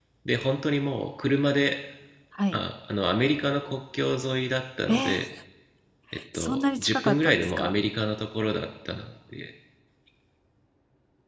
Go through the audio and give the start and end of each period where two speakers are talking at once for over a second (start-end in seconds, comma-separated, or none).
6.3-7.8